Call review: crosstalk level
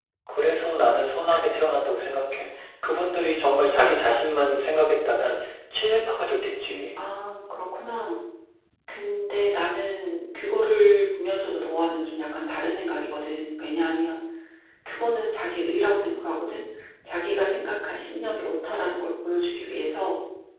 none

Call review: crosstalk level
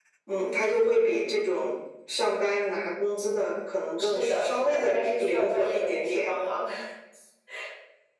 present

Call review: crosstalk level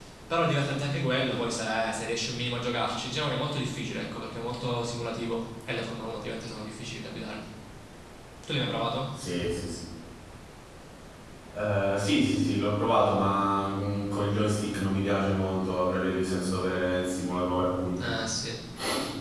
none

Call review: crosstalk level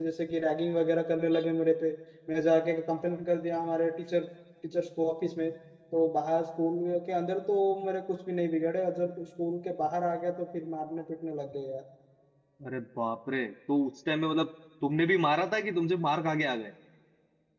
none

